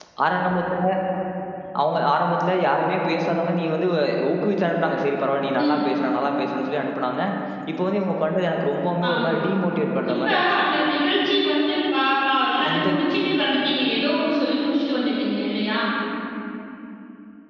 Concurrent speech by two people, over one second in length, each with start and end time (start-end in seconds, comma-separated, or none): none